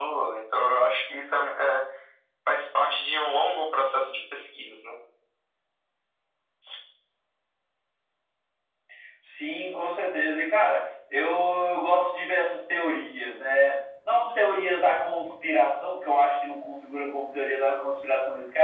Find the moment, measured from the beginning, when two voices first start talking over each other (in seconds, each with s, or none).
none